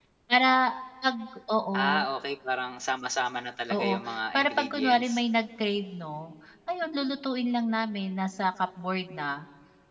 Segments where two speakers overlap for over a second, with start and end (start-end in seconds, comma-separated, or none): 3.7-5.2